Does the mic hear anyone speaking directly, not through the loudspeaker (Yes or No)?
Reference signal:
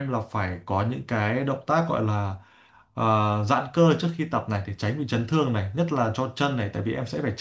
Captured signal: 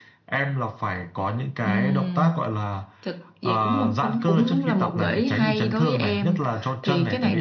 Yes